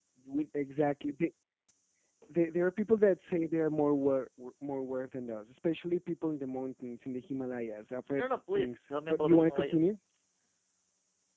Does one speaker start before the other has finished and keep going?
Yes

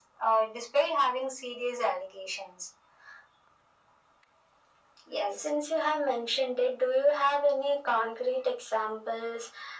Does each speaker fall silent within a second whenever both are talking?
Yes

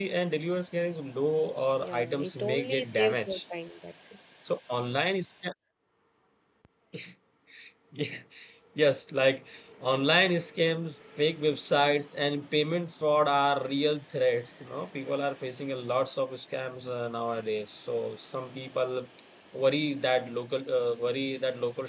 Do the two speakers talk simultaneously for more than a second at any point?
Yes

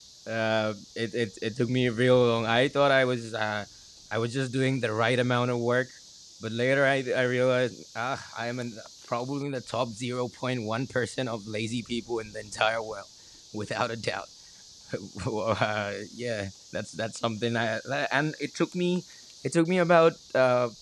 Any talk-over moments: No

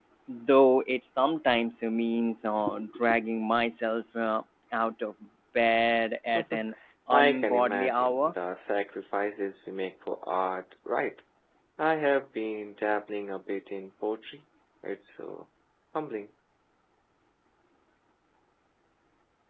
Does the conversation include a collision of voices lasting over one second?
Yes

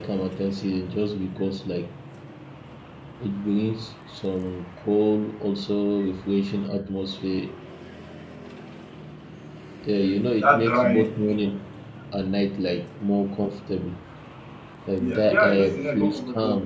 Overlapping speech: Yes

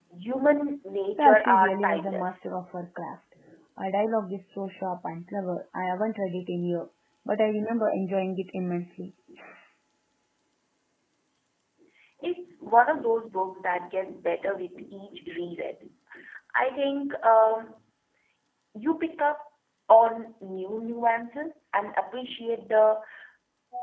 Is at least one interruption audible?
Yes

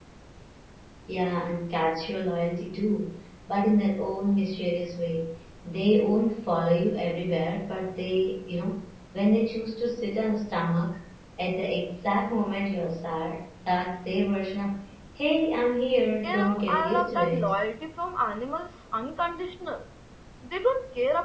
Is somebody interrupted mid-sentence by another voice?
Yes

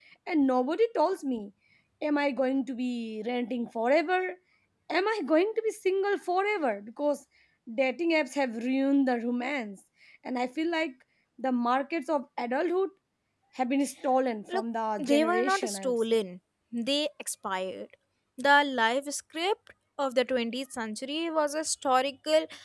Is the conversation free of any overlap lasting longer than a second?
No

